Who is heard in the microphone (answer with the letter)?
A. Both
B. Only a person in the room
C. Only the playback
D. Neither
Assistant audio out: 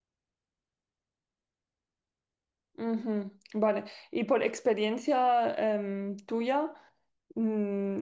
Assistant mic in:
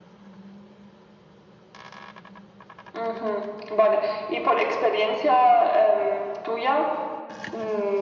C